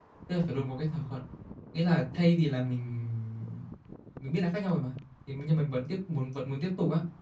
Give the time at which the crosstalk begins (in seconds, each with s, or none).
none